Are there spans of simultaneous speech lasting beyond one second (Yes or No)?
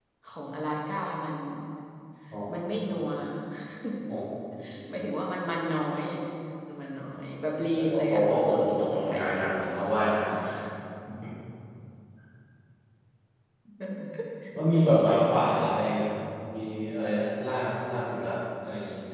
Yes